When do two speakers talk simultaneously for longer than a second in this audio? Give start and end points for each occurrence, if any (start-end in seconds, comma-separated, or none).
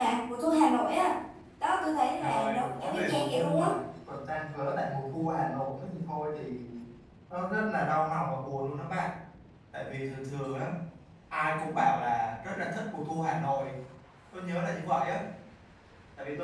2.2-3.7